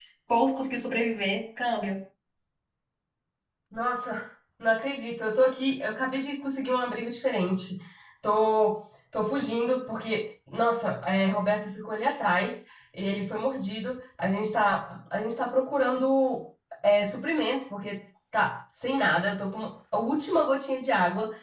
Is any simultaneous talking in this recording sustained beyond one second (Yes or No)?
No